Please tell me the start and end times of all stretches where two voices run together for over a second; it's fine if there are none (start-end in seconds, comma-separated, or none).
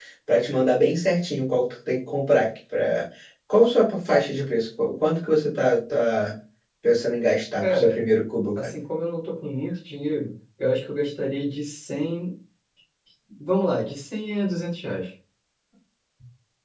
none